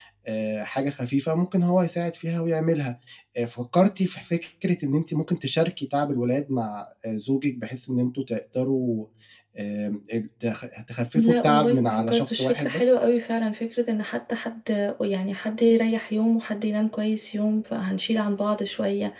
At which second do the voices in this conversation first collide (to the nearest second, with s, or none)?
11 s